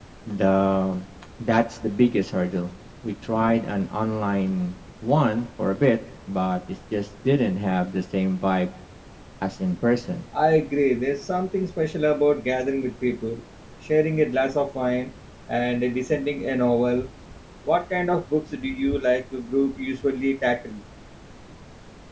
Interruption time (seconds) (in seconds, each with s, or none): none